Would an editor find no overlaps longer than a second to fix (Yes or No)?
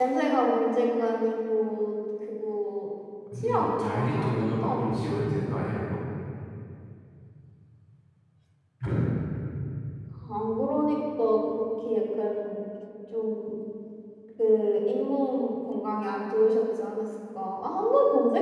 No